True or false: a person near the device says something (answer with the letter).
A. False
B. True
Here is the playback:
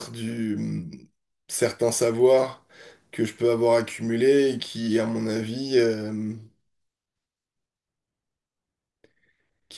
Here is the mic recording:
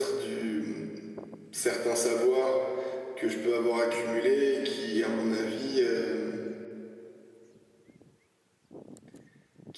A